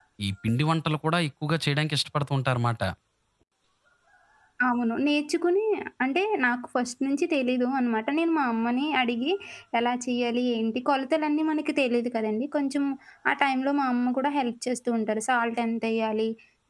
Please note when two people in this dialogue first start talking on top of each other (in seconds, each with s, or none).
none